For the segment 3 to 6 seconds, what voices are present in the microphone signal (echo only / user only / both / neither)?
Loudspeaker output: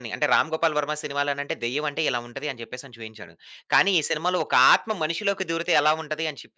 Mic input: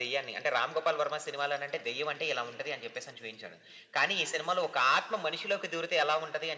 echo only